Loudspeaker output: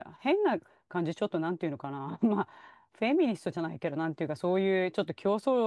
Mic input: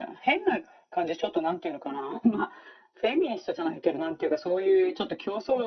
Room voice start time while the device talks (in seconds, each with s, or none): none